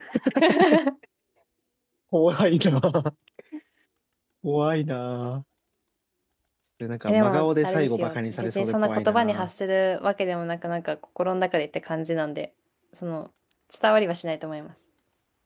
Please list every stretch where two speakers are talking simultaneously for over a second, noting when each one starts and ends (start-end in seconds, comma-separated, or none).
7.1-9.5